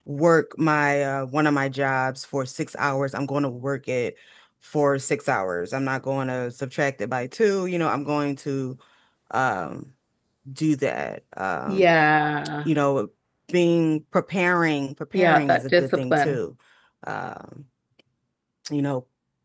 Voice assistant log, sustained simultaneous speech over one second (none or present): present